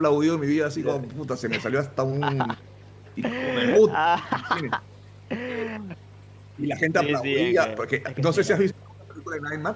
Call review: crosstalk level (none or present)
present